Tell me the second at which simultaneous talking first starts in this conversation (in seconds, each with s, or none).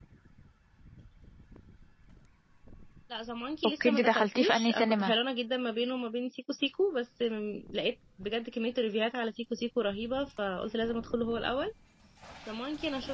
3.8 s